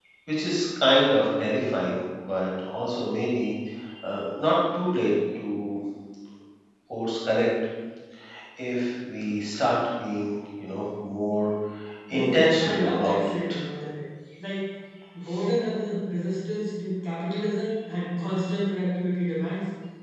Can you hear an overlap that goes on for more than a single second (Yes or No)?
Yes